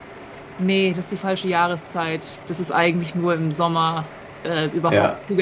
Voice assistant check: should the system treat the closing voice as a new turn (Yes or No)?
No